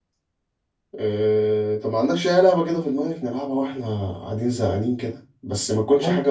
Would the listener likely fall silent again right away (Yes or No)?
Yes